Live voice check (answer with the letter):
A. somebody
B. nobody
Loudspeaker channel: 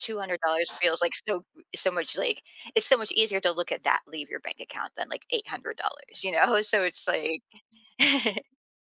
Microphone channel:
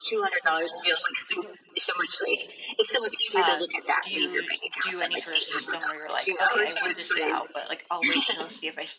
A